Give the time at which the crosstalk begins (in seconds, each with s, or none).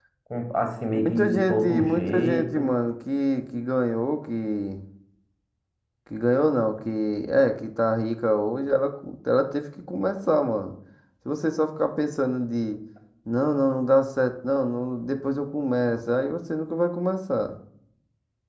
0.9 s